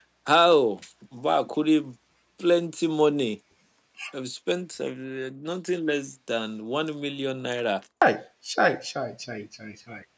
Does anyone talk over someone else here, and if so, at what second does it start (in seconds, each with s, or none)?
none